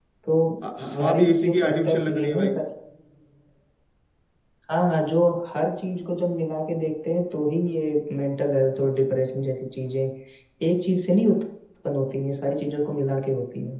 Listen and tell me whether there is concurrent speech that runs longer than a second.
Yes, from 0.9 s

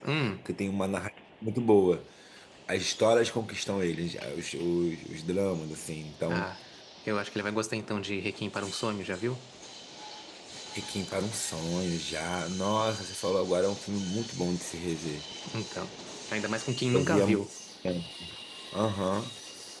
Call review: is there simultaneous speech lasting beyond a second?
No

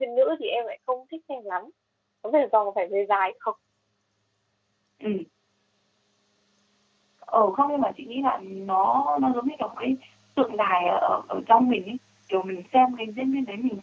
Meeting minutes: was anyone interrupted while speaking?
No

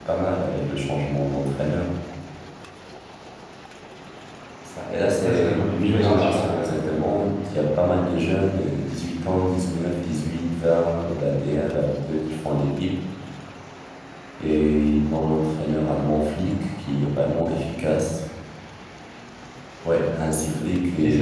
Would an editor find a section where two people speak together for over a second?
Yes, from 5.2 s

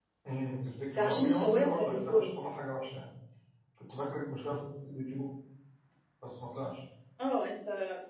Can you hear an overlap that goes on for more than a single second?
Yes, from 1.0 s

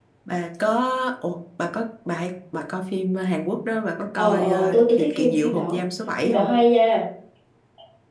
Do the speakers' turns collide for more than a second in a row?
Yes, from 4.2 s

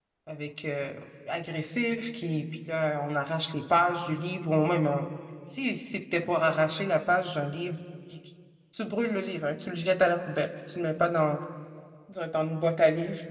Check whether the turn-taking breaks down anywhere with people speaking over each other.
No

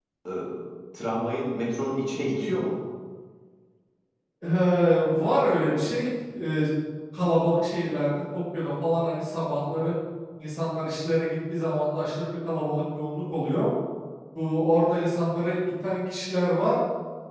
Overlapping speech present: No

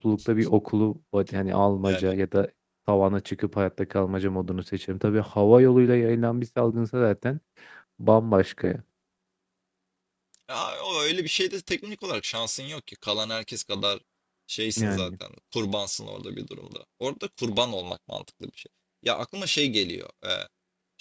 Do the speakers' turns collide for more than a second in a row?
No

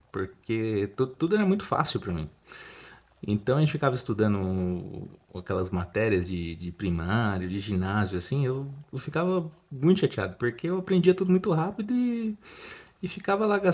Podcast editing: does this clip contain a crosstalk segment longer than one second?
No

